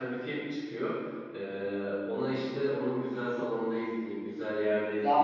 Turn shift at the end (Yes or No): Yes